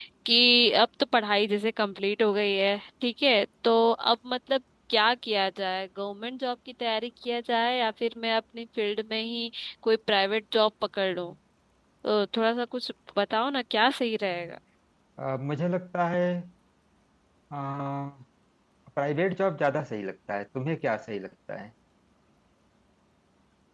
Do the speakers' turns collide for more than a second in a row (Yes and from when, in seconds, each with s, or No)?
No